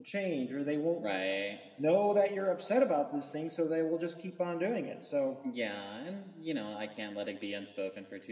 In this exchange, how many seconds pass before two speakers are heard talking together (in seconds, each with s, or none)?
none